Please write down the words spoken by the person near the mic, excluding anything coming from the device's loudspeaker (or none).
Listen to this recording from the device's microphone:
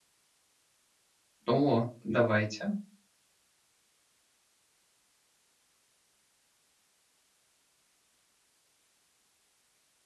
О, давайте.